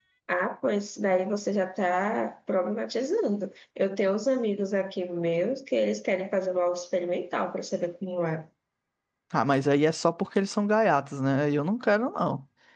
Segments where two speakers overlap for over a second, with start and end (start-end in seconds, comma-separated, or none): none